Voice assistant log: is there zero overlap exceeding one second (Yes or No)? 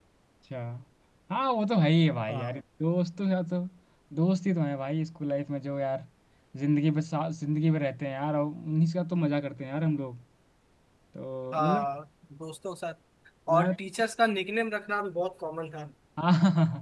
Yes